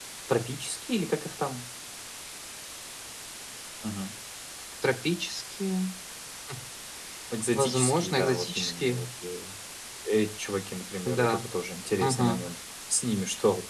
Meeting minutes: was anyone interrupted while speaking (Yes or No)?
Yes